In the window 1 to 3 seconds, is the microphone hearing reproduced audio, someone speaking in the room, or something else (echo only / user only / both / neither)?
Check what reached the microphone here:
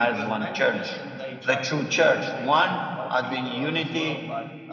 both